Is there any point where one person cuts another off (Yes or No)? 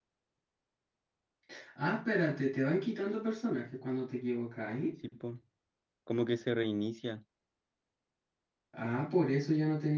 No